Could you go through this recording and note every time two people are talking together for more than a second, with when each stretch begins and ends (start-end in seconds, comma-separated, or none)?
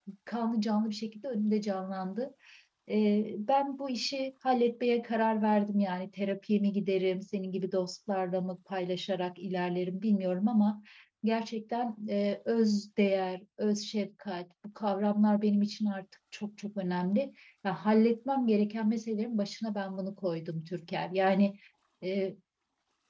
none